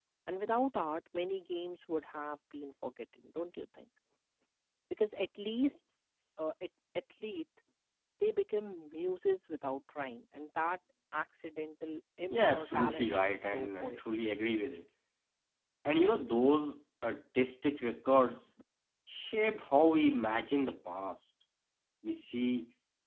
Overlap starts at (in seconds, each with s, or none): 12.3 s